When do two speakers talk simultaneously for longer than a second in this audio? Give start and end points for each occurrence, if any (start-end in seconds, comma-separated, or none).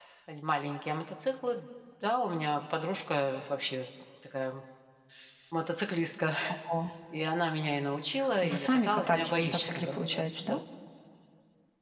8.4-10.6